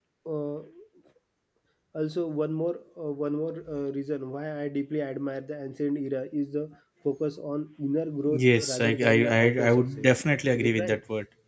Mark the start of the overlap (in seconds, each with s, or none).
8.3 s